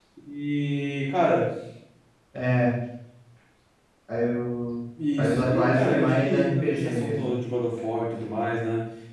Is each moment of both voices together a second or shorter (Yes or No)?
No